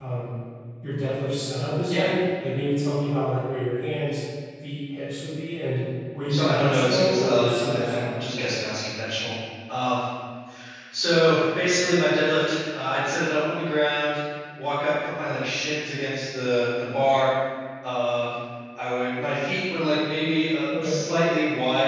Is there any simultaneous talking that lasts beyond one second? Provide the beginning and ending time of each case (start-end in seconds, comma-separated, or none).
6.3-8.3